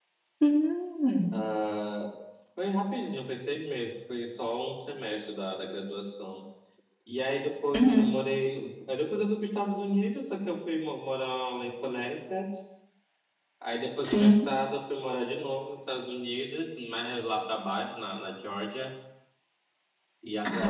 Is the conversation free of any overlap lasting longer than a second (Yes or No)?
Yes